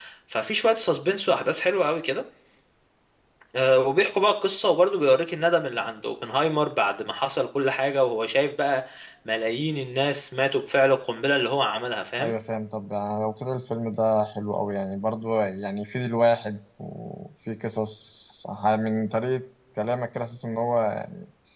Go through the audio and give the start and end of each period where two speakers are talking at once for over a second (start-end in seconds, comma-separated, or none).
none